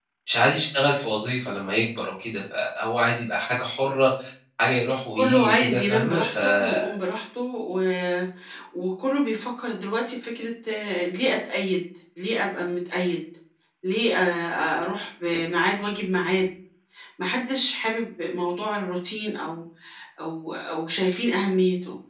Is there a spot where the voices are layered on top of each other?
Yes, from 5.2 s

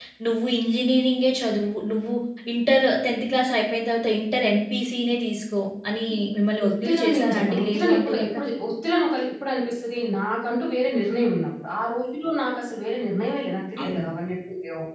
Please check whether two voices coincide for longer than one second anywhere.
Yes, from 6.6 s

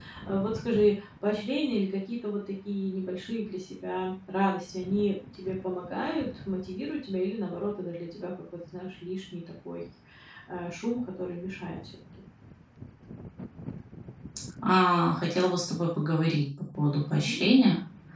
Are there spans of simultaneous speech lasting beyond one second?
No

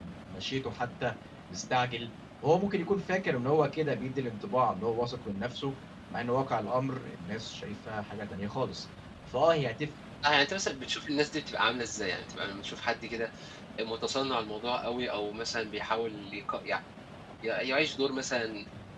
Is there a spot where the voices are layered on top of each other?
No

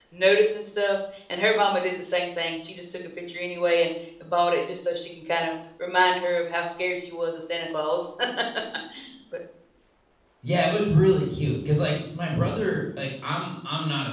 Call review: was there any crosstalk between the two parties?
No

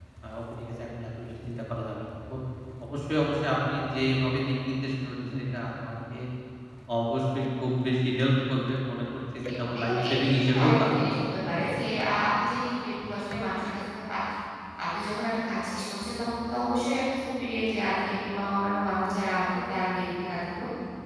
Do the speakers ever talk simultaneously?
Yes, from 9.7 s

